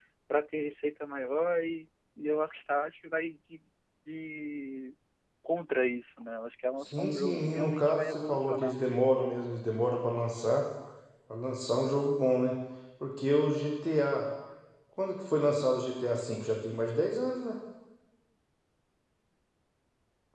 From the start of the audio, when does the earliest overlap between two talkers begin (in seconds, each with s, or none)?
6.8 s